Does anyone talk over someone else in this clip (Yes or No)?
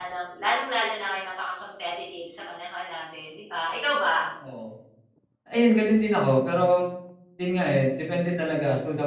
No